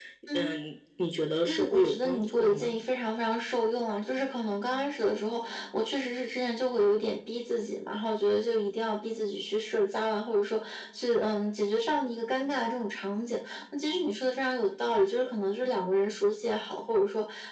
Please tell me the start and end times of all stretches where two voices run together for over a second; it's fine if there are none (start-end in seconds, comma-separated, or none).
1.5-2.8